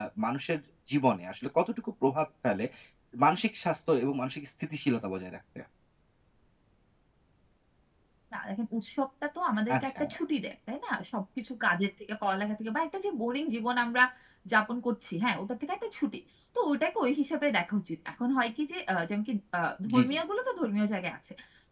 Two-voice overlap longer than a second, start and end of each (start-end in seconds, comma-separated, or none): none